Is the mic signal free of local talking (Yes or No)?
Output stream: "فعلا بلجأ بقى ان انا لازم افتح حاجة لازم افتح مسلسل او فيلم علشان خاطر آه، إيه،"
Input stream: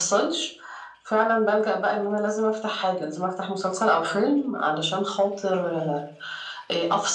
Yes